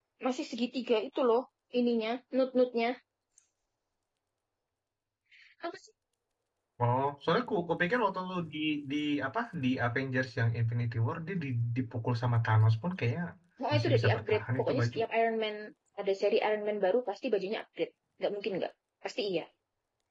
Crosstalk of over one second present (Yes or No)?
Yes